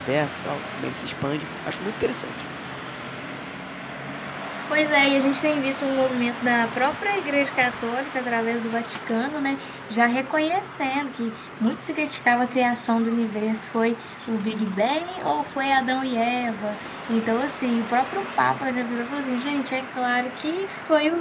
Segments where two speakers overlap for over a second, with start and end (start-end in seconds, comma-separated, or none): none